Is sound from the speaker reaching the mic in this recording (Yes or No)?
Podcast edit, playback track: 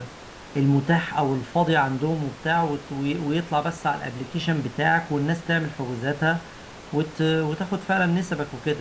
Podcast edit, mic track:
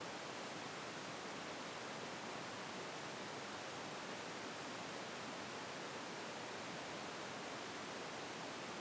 No